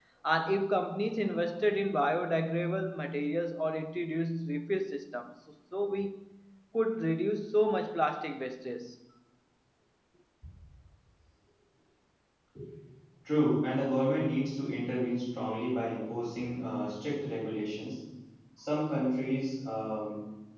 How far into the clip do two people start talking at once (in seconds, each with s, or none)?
none